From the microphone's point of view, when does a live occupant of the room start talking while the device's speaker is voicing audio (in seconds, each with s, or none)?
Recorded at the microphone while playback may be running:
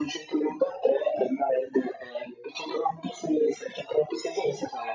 none